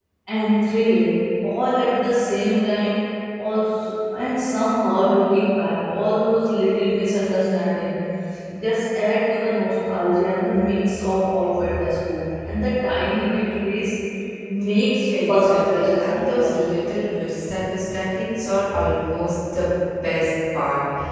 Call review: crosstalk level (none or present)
present